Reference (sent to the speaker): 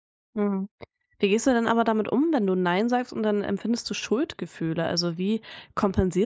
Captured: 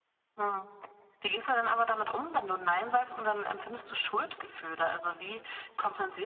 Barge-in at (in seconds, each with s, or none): none